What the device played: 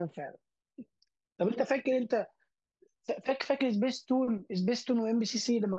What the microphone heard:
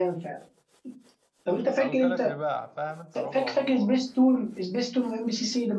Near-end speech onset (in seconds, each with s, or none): 1.8 s